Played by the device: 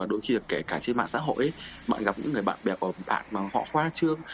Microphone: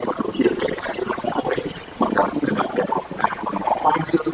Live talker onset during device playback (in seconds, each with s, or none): none